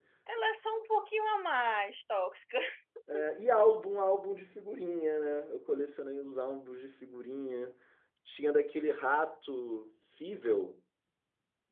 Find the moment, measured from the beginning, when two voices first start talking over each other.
none

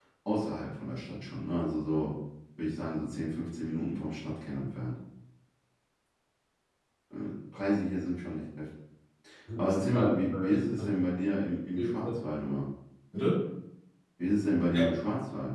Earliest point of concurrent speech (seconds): 9.6 s

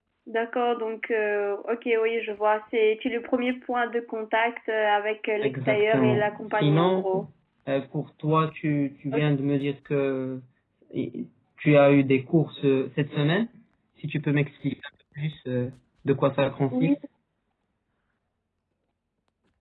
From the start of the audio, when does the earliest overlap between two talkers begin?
5.4 s

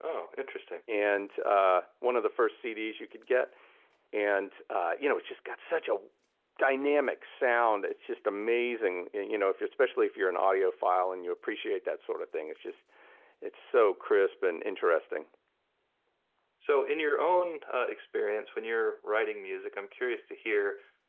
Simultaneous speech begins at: none

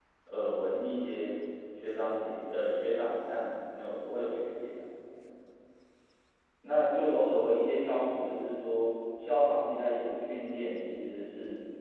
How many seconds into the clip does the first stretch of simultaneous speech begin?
none

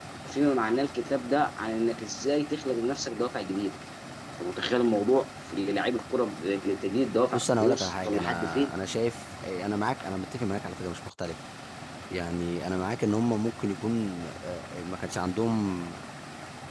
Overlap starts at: 7.3 s

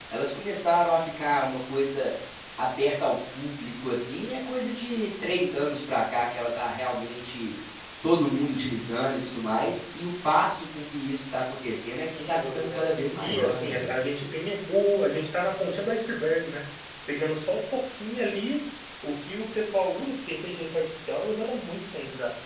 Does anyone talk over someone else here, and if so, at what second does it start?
12.1 s

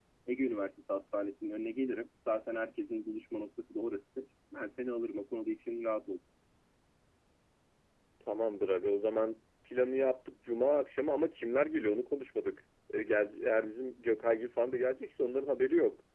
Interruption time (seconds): none

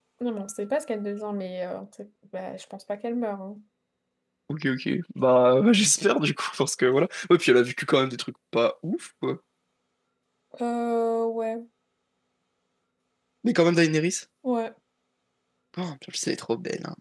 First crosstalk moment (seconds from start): none

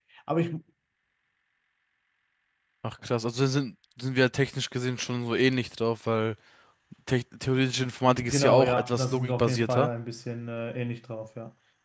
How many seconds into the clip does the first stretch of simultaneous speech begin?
8.2 s

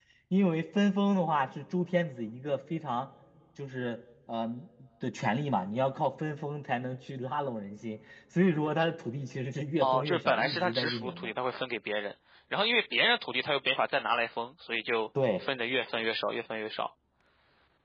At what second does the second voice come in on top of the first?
9.8 s

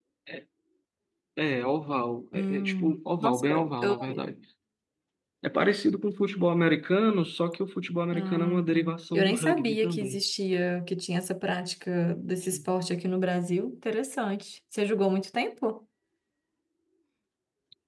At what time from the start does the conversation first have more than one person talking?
2.3 s

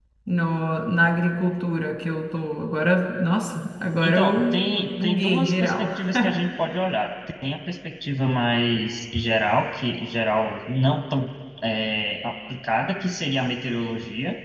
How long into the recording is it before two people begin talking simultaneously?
4.0 s

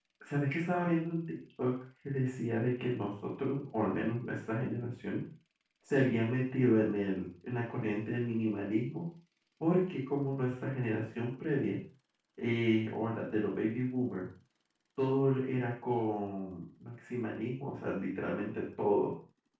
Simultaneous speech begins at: none

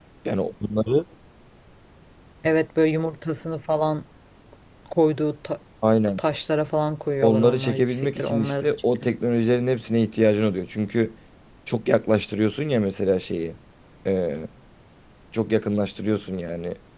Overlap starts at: 7.2 s

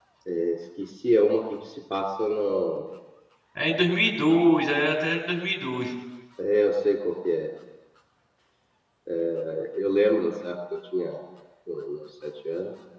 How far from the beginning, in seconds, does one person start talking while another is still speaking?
none

